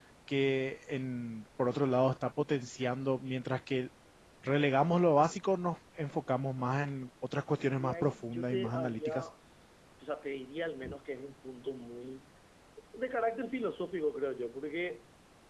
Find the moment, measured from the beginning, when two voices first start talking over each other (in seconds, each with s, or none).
7.8 s